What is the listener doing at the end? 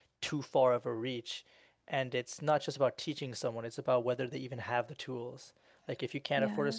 listening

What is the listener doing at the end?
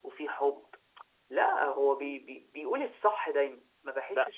taking over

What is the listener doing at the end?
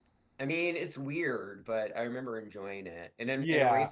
listening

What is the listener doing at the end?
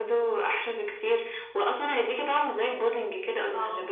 taking over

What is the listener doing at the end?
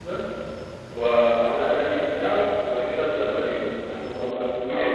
taking over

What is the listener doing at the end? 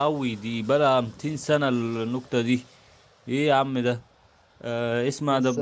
listening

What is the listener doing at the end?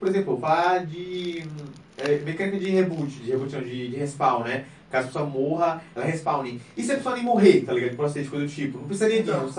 listening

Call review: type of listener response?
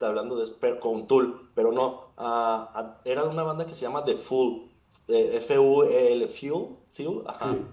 listening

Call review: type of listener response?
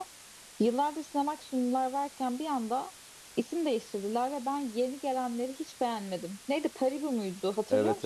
taking over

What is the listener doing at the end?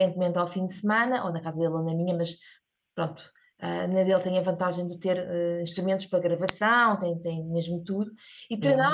listening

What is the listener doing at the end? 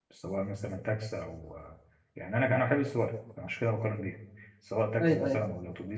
listening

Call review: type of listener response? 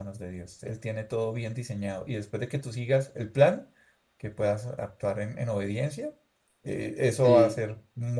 listening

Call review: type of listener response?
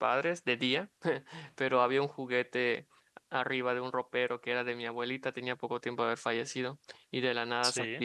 listening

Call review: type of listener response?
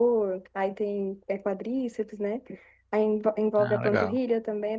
listening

